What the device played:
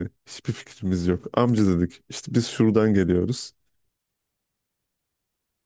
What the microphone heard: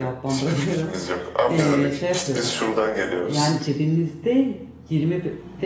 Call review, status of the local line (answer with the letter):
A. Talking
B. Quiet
A